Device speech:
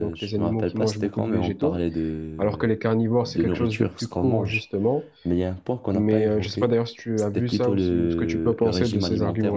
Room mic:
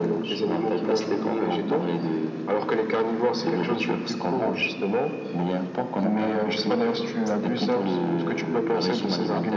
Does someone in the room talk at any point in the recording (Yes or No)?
No